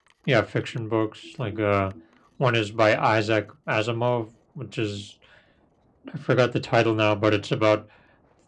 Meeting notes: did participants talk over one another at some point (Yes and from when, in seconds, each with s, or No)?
No